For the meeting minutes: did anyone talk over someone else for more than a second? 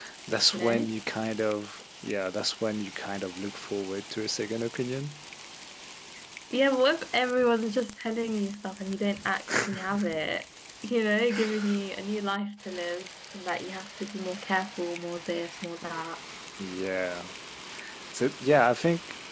No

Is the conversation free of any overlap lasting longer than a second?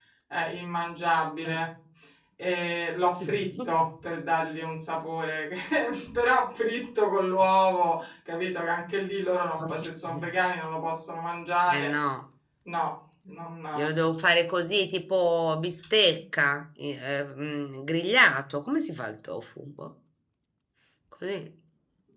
Yes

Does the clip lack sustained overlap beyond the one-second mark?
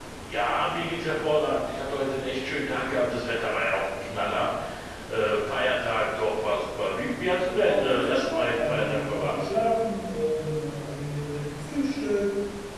No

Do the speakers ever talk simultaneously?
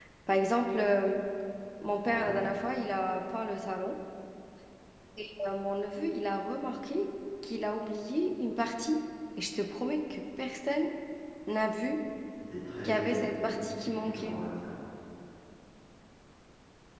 Yes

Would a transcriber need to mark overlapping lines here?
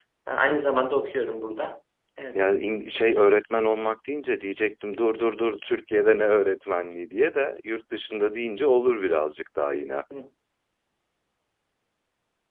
No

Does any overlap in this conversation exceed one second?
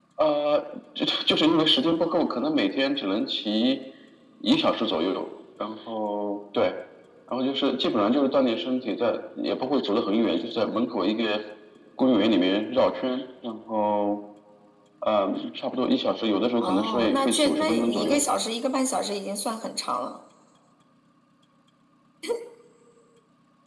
Yes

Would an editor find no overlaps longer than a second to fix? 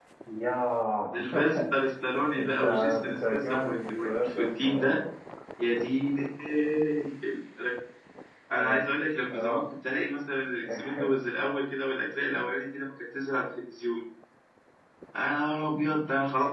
No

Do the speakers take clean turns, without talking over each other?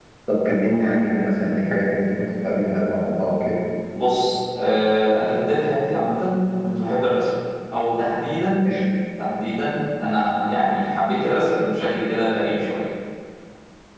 Yes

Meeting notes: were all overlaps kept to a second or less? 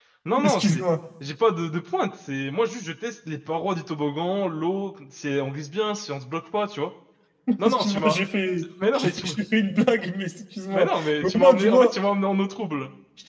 No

